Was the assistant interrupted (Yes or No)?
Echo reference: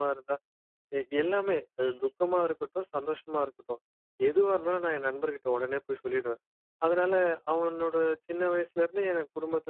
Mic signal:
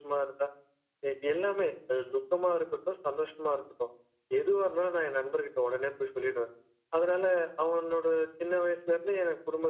No